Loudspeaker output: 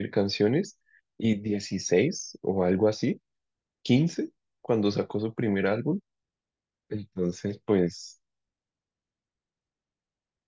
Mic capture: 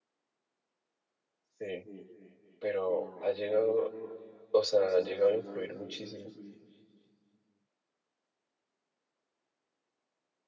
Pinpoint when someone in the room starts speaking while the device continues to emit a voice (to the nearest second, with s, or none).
2 s